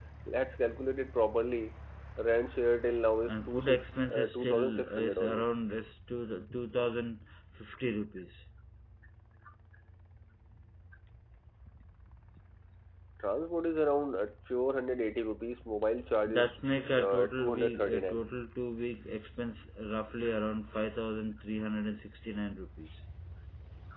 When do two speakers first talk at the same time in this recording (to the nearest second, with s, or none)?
3 s